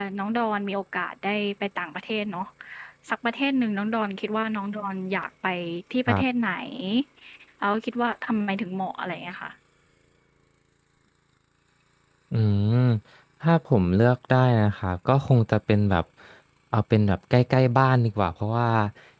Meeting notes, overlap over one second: none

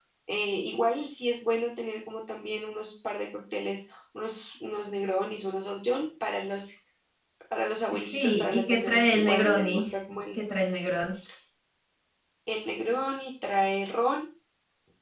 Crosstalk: present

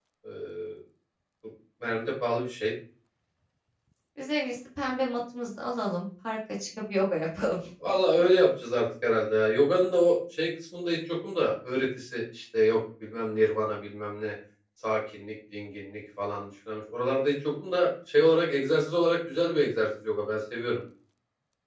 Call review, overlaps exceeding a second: none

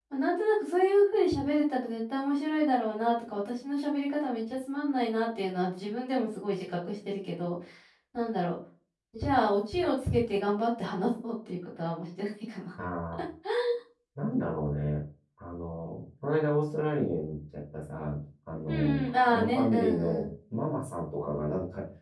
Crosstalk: present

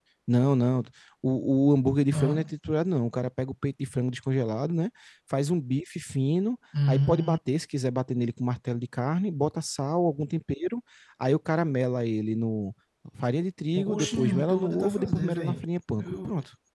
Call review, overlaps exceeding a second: present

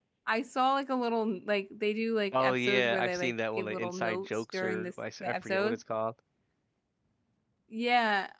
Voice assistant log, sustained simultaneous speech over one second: present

